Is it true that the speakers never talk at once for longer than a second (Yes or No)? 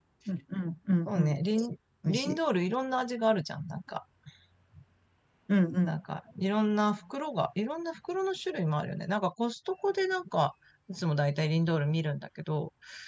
Yes